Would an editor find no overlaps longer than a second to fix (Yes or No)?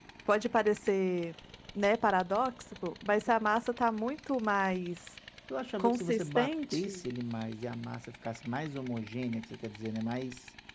No